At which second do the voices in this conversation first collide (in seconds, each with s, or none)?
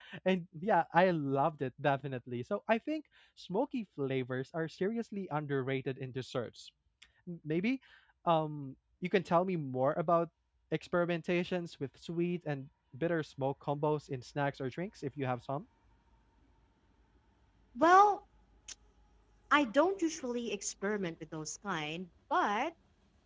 none